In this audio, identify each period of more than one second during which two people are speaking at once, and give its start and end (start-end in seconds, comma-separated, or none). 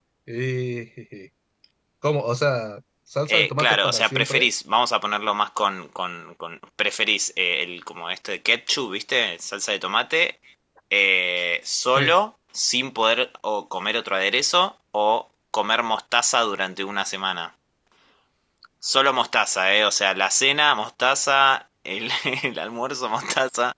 3.3-4.5